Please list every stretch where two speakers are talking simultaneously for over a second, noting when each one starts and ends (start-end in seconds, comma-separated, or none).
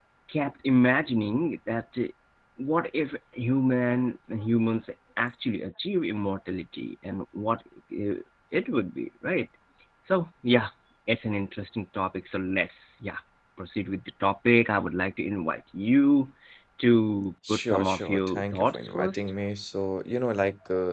17.5-19.3